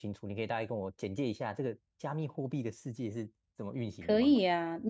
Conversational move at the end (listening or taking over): taking over